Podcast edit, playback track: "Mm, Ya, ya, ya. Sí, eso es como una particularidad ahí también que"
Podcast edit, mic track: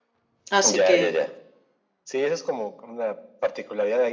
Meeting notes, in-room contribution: present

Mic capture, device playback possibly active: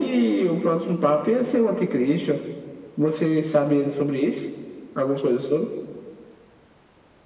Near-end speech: none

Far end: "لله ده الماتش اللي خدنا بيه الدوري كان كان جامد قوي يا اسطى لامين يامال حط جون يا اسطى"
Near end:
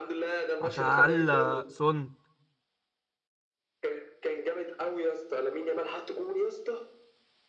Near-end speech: present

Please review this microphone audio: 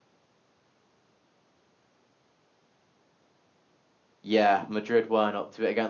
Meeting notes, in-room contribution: present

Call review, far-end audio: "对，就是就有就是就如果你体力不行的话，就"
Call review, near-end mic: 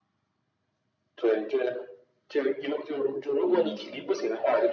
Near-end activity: present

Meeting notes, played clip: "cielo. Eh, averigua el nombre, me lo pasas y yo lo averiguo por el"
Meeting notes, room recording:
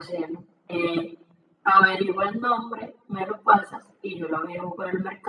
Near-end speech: none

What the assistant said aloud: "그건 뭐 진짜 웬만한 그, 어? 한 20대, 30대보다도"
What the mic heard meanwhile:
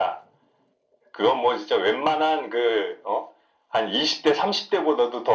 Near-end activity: none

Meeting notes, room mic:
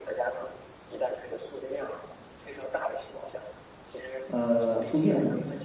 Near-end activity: present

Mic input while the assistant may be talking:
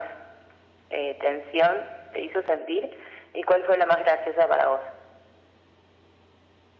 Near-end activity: none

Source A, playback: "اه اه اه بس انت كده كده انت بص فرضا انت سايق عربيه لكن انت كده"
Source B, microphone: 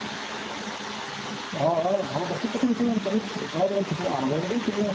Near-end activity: none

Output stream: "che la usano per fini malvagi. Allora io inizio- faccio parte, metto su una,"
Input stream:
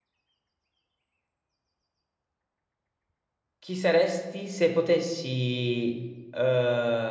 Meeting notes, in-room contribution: present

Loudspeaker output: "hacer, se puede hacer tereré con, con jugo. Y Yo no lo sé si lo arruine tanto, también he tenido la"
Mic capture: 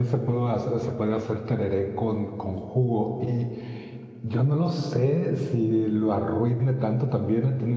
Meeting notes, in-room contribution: none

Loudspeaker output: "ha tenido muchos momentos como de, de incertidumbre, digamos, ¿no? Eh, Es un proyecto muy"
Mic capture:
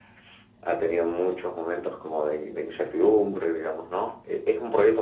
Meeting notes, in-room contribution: none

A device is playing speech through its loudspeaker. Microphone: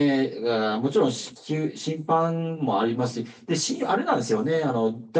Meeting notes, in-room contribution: none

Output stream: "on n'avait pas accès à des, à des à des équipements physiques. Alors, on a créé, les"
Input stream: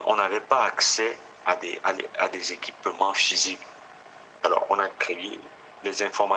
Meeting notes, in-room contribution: none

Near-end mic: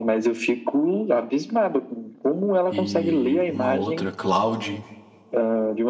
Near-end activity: present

